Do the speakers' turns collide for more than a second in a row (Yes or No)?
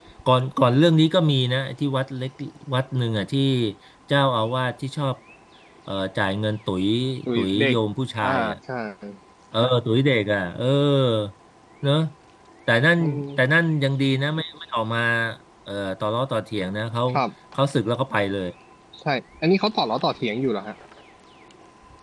No